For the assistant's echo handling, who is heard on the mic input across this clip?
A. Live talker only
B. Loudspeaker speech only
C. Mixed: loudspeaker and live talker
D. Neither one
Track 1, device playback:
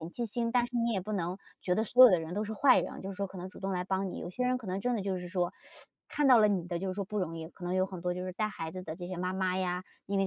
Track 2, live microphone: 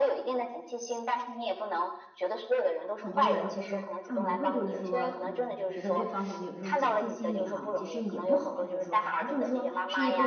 C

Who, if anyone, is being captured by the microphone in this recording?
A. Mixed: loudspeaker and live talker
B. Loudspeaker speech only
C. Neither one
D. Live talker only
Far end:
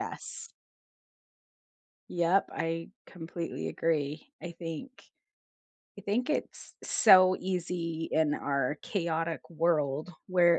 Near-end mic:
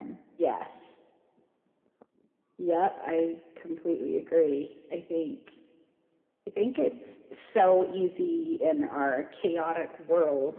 B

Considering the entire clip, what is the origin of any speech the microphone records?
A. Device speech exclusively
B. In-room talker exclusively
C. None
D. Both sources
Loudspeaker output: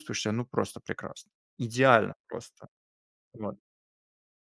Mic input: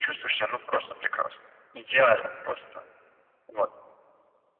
A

